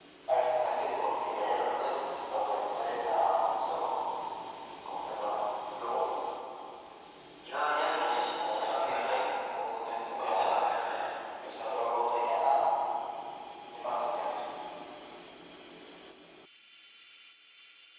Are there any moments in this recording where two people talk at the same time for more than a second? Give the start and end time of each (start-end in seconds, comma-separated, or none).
7.8-9.2